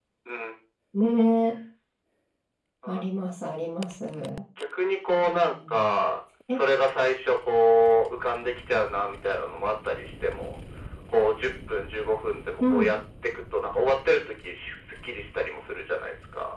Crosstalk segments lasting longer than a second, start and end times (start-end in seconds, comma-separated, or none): none